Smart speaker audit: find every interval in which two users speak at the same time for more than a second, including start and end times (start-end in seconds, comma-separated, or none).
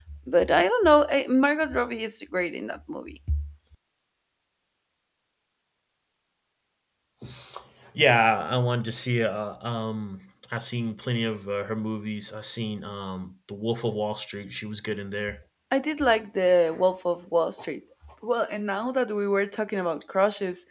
none